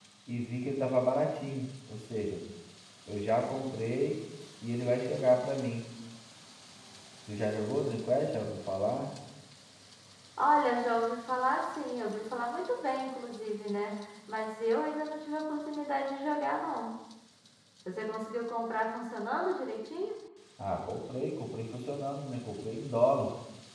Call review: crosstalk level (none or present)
none